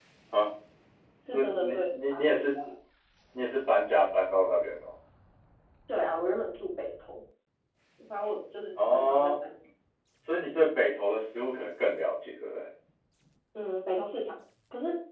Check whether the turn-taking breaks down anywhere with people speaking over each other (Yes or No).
Yes